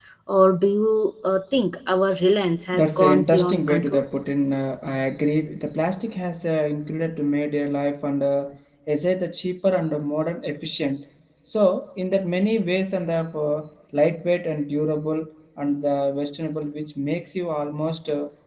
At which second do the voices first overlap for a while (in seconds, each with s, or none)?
2.7 s